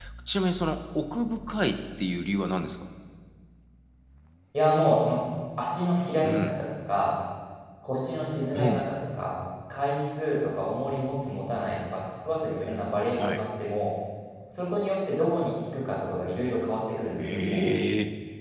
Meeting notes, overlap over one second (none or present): none